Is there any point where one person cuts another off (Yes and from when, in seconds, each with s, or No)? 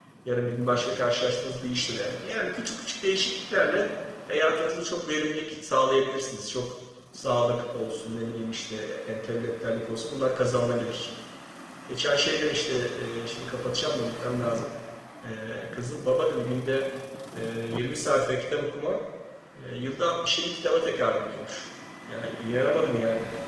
No